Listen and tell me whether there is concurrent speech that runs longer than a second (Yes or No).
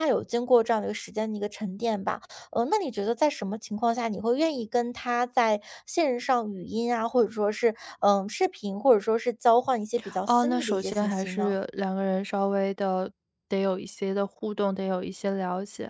Yes